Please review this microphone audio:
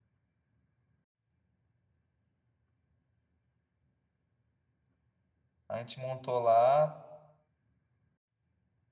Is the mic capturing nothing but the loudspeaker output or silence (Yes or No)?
No